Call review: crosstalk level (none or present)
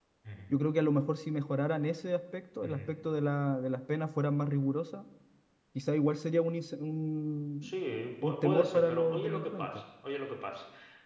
present